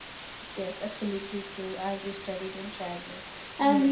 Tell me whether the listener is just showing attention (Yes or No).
Yes